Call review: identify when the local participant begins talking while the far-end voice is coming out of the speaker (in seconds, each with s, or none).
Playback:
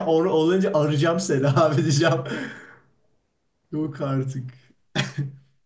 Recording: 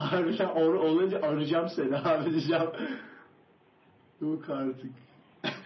none